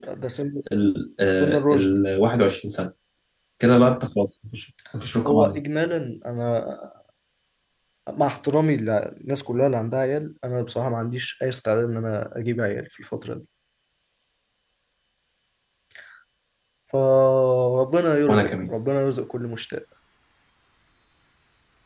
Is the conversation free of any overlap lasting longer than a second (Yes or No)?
Yes